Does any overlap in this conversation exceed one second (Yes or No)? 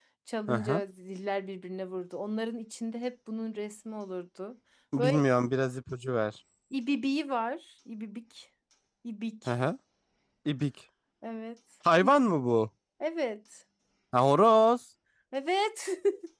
No